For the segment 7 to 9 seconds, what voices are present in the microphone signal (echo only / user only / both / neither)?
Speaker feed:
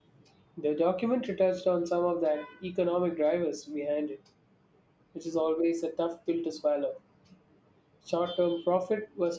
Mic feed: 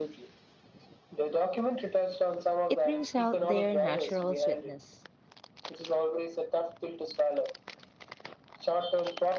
echo only